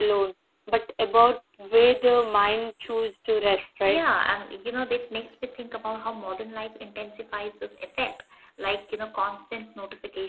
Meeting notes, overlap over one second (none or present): none